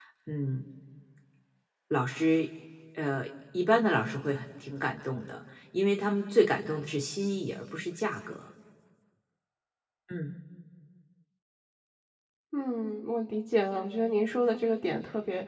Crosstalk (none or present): none